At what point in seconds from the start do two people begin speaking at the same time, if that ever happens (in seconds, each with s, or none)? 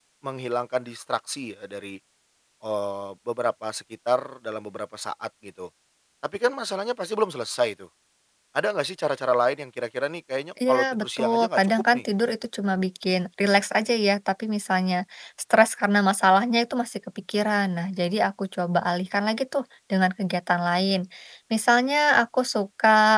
10.6 s